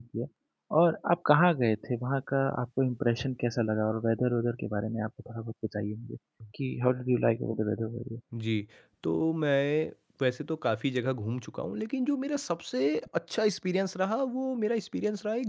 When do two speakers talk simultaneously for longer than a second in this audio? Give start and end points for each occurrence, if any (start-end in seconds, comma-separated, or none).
none